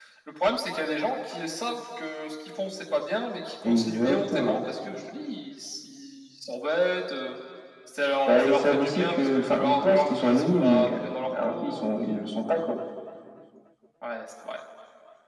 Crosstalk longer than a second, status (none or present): present